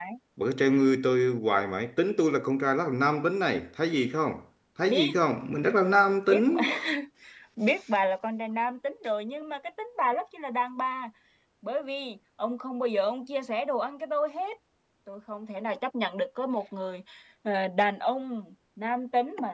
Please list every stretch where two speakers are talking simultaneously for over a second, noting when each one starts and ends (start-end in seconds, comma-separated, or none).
none